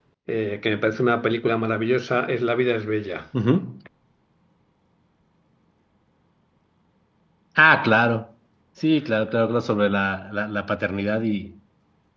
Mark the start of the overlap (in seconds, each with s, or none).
none